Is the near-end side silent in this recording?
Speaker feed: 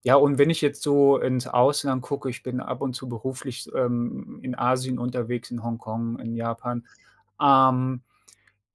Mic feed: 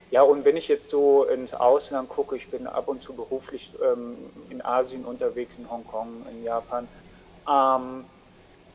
Yes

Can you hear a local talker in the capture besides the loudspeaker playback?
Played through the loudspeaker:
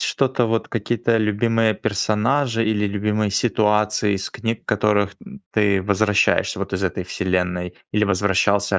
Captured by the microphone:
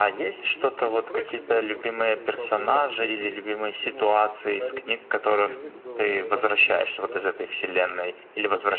Yes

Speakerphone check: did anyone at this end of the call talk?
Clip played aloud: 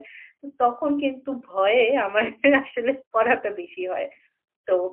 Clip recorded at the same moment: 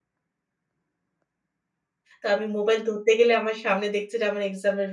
Yes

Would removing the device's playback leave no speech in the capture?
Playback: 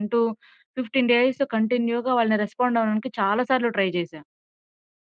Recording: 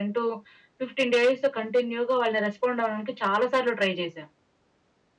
Yes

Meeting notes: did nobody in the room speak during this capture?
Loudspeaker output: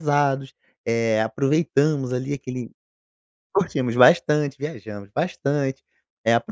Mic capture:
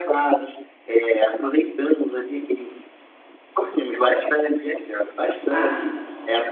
No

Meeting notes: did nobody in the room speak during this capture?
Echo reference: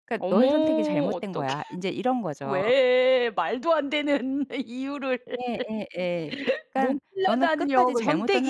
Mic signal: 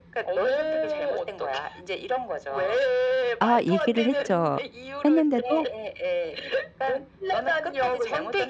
No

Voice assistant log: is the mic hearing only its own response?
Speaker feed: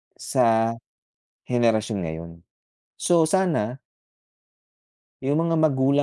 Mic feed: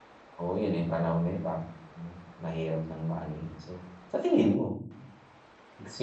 No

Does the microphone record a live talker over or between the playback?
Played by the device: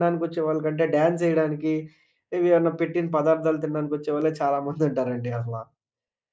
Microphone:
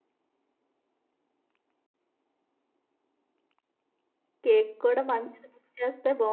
Yes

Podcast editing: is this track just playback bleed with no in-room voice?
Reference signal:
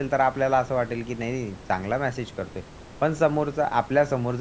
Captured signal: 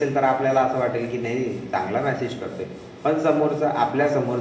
Yes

